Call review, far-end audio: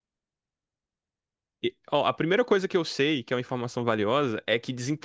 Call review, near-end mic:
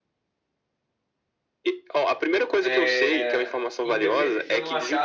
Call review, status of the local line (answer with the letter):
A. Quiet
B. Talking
B